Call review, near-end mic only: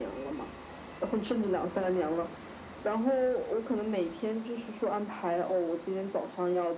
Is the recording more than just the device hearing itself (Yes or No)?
No